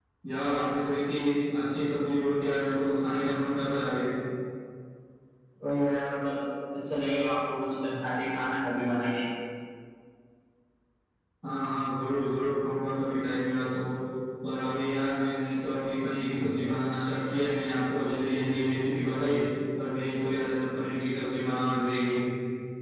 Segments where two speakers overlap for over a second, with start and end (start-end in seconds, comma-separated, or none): none